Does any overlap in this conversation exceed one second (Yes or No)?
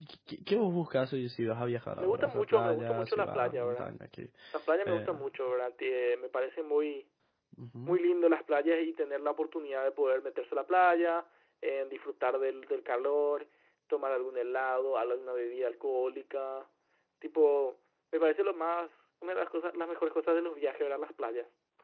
Yes